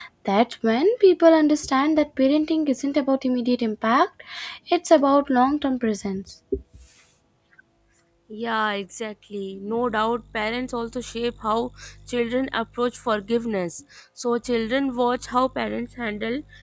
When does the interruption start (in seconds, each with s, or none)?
none